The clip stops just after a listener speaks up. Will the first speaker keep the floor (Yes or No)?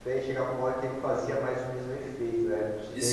No